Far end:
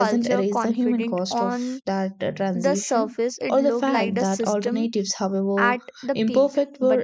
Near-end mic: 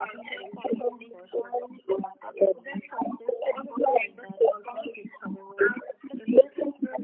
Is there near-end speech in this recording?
No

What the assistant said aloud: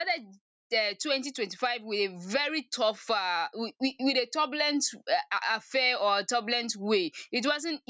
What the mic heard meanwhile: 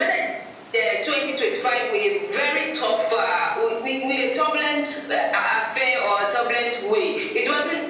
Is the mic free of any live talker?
Yes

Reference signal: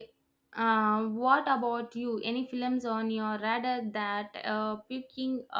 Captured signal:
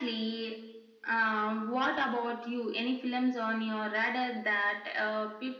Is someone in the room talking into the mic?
No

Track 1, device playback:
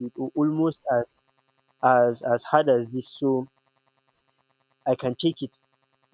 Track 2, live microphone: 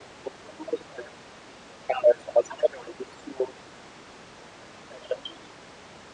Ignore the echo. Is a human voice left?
No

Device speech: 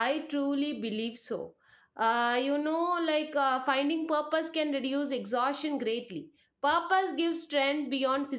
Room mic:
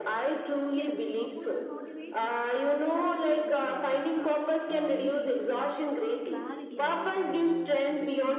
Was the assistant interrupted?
Yes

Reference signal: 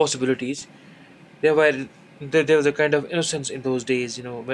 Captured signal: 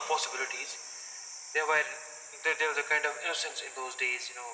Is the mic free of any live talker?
Yes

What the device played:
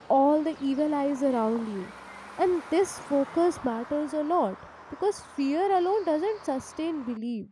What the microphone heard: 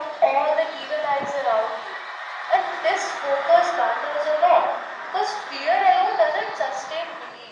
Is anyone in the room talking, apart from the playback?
No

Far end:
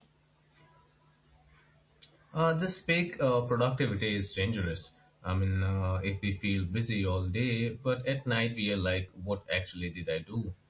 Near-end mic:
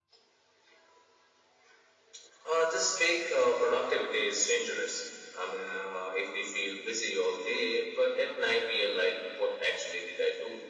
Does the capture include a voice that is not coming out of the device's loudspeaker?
No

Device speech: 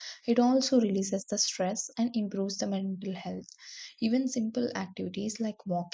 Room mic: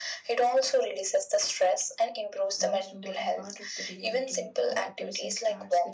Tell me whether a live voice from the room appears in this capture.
Yes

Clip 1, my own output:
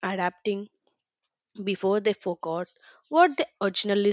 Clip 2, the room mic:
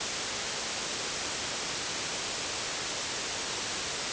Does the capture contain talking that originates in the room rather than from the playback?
No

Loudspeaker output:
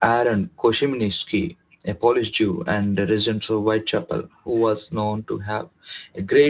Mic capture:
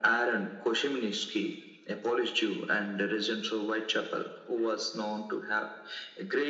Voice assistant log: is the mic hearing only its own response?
Yes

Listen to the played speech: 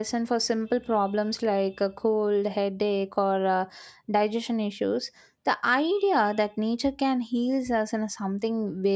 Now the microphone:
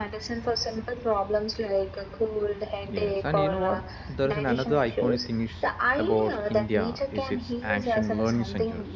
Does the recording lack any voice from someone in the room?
No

